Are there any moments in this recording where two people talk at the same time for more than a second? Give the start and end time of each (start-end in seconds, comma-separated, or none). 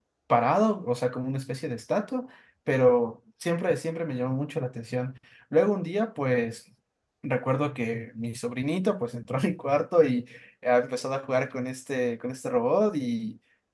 none